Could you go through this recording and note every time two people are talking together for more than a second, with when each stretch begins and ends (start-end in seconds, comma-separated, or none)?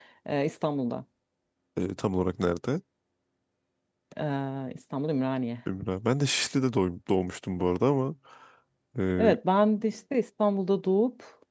none